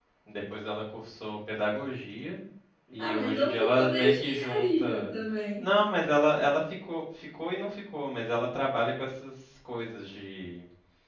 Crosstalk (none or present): present